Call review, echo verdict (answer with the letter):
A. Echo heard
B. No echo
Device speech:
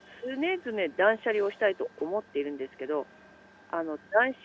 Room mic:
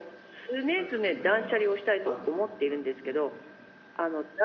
A